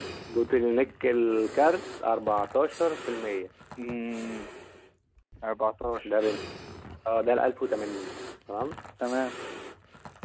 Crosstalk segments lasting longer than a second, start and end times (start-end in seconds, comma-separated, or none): none